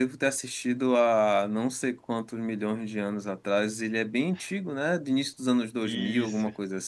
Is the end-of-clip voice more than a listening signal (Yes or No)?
Yes